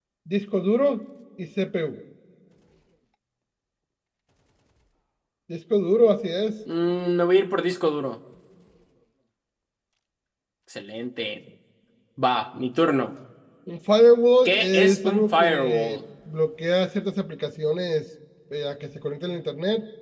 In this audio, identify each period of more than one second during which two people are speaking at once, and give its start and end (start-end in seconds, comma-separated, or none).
14.4-16.0